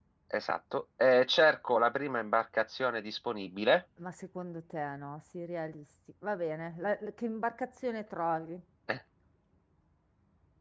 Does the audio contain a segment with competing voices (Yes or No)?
No